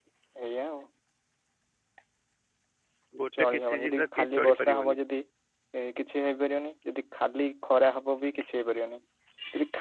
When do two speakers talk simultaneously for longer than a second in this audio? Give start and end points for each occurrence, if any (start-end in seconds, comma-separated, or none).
3.4-5.0